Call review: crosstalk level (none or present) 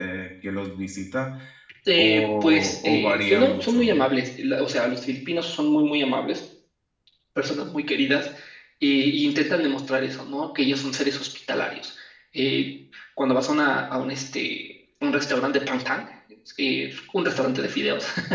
present